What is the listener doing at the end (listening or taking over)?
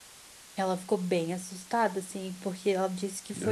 listening